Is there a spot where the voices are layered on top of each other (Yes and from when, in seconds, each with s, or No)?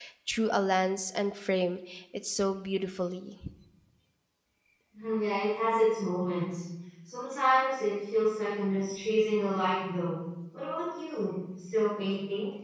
No